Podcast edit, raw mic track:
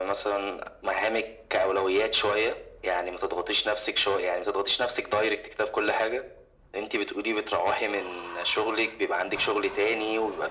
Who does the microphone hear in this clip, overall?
echo only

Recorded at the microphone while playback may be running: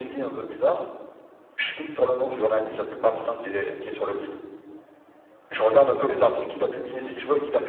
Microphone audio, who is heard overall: echo only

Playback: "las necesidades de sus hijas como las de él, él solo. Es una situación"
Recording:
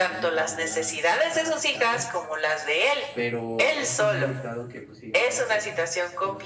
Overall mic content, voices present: both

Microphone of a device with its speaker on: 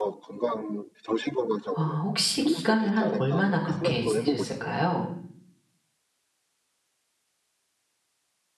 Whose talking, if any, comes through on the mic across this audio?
both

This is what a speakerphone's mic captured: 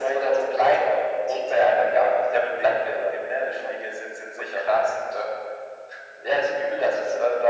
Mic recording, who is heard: echo only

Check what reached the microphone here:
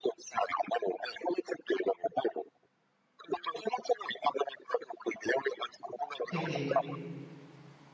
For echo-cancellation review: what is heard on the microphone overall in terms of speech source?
both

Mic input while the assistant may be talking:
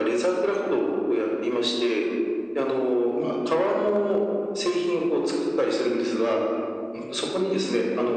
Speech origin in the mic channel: echo only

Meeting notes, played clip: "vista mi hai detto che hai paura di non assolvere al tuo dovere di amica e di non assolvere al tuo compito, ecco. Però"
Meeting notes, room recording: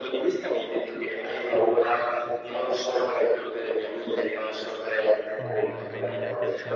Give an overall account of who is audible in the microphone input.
both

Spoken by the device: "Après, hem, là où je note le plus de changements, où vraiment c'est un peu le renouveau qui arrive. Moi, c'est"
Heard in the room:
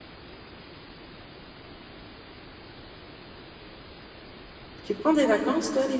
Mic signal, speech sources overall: user only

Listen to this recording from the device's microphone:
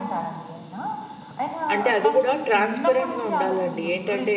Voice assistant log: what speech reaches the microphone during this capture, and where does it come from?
both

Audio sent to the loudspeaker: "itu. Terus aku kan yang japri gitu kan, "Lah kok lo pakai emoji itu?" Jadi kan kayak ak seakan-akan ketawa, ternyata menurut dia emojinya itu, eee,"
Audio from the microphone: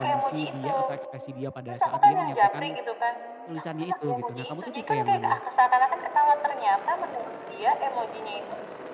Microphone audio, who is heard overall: both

